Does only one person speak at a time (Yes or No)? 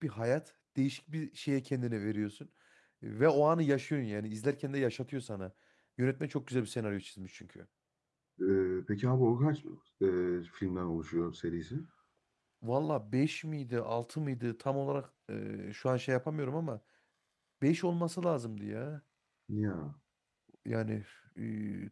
Yes